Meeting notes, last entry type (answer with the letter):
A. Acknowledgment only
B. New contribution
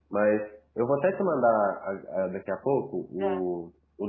A